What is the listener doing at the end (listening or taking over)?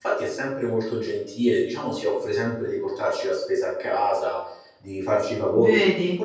listening